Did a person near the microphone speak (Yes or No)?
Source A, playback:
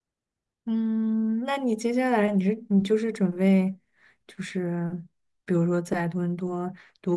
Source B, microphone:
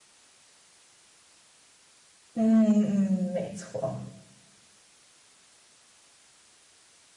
Yes